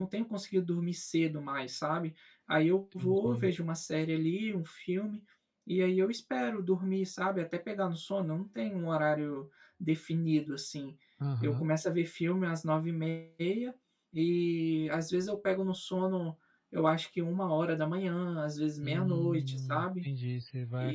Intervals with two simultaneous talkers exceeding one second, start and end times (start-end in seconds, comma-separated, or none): 18.8-20.1